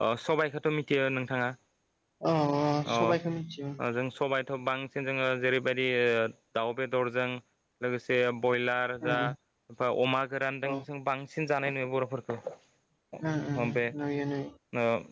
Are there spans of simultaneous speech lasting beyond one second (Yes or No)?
No